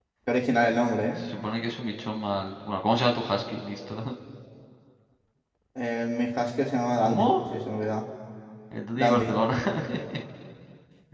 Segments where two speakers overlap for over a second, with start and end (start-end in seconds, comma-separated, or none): none